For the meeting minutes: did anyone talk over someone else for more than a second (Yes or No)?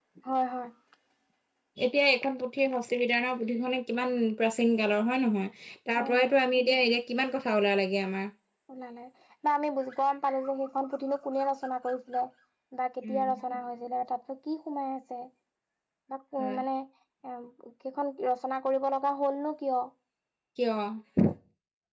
No